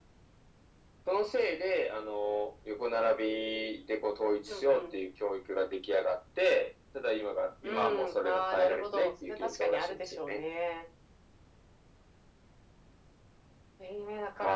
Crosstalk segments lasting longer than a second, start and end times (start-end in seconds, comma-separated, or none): 7.6-10.4